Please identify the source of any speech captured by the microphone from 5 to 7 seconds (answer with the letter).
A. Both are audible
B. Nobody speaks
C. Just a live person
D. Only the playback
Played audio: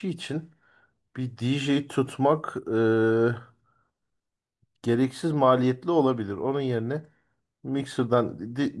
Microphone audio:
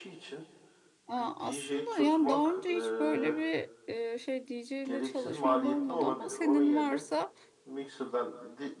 A